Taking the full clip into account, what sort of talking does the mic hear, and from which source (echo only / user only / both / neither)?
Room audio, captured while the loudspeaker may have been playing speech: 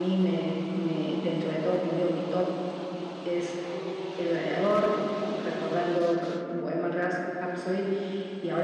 user only